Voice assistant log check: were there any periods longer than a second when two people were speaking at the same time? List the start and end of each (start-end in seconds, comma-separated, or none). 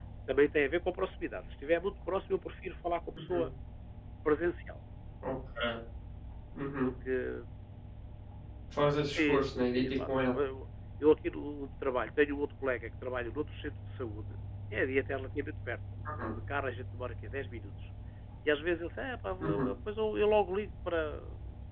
9.1-10.3